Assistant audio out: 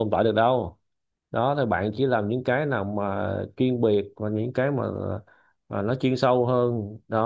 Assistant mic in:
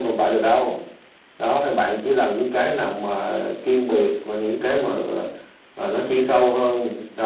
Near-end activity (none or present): none